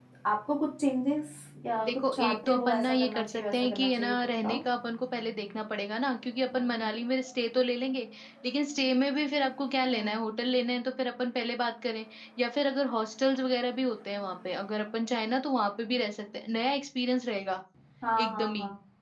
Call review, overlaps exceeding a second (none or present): present